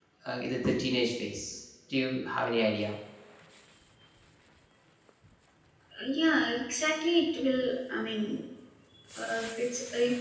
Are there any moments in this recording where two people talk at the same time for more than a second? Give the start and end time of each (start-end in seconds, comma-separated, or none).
none